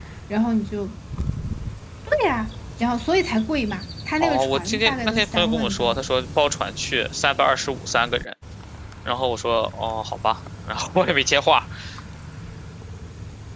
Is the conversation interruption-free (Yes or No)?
No